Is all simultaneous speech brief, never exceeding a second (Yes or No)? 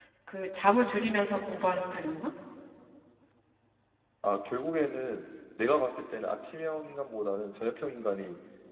Yes